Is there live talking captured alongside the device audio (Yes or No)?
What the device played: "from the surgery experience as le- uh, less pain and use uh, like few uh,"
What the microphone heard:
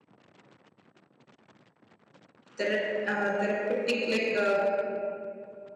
Yes